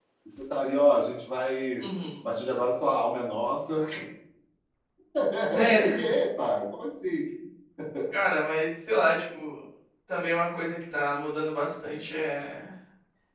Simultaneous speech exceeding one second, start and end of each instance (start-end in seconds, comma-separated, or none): none